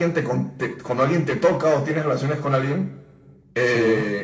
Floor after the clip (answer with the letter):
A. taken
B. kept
B